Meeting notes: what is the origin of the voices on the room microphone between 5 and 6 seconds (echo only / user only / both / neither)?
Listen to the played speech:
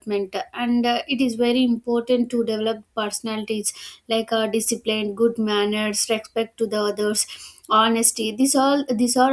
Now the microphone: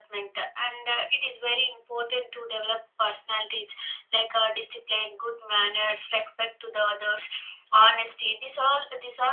echo only